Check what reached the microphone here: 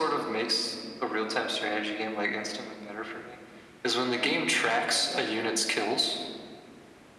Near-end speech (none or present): none